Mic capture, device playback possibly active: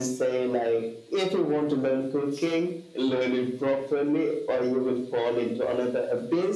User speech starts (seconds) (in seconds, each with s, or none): none